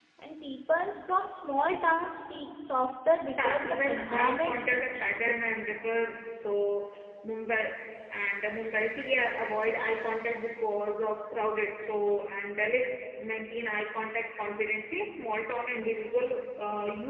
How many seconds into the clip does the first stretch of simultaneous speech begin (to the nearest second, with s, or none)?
3 s